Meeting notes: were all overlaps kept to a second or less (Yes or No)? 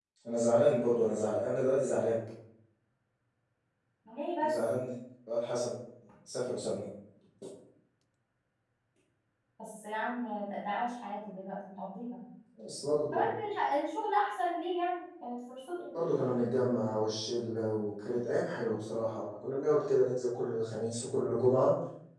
Yes